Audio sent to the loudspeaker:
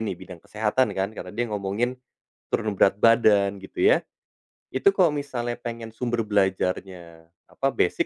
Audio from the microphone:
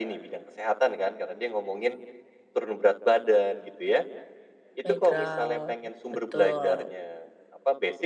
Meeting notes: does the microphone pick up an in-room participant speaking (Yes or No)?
Yes